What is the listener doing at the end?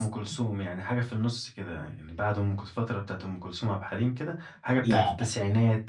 listening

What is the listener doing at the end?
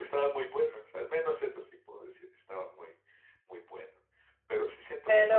listening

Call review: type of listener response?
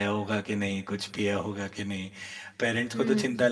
listening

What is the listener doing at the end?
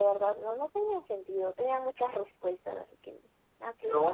taking over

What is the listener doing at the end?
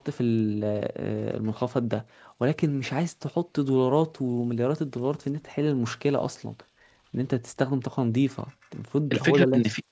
taking over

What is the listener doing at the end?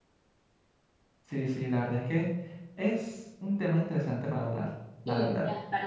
taking over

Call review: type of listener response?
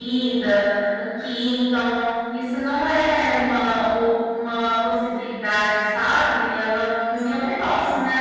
listening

